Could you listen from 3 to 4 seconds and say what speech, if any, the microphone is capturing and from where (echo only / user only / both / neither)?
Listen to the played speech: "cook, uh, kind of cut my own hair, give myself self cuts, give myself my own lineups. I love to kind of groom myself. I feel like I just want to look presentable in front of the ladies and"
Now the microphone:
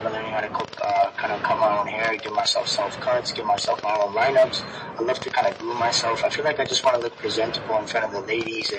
echo only